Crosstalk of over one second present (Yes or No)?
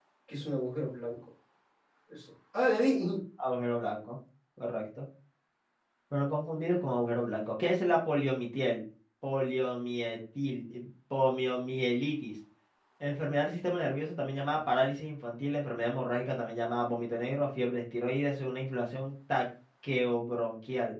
No